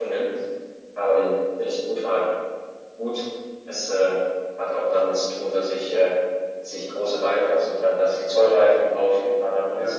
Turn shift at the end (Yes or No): No